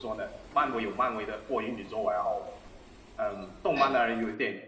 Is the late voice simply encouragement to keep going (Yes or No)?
Yes